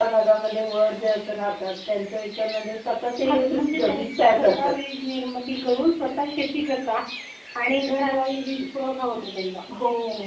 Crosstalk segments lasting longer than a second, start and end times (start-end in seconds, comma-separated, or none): 3.2-4.7